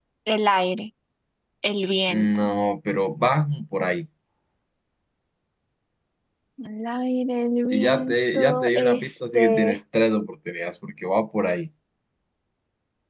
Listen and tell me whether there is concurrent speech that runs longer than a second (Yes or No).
Yes